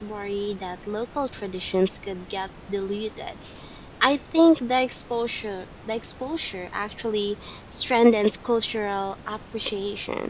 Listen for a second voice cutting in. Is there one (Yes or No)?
No